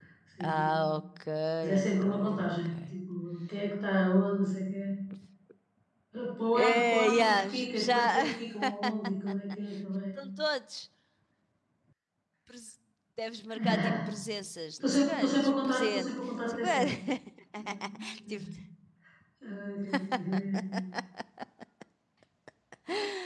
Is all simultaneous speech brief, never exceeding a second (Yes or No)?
No